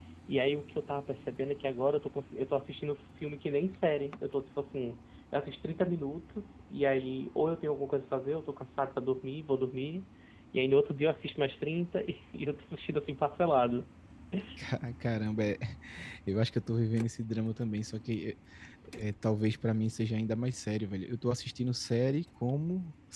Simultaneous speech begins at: none

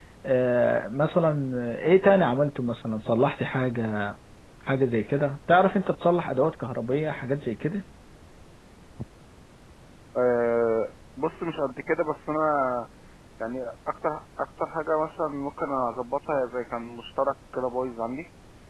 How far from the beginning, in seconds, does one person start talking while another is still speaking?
none

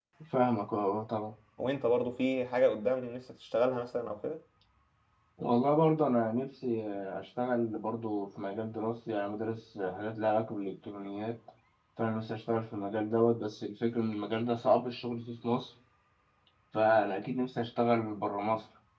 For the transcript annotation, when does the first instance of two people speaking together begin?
none

